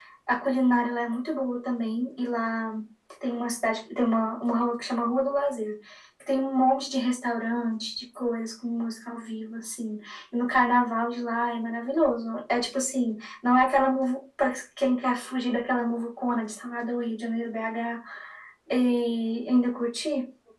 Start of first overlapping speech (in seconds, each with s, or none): none